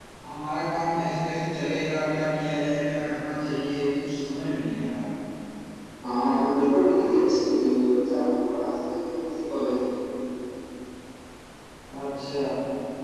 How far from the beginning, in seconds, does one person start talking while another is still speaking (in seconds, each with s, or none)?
none